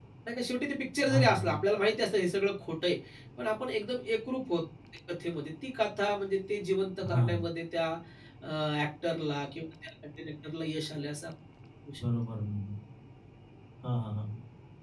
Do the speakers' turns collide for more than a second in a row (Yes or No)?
No